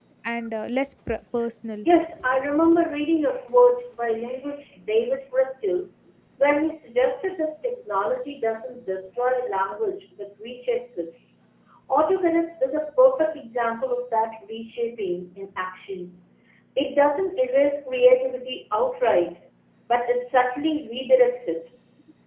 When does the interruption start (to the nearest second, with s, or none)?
none